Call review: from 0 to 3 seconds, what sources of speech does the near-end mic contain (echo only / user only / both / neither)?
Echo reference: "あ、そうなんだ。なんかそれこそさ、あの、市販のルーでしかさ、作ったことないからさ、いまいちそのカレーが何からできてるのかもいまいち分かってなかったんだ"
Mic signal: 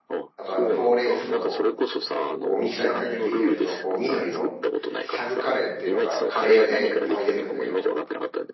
both